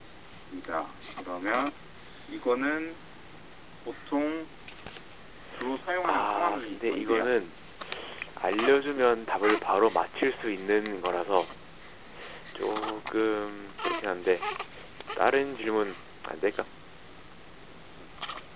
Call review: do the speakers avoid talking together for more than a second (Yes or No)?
No